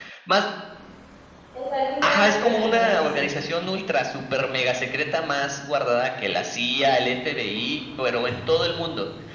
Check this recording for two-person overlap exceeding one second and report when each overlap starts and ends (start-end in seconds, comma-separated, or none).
2.0-3.3